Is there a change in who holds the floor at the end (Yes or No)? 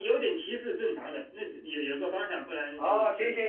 Yes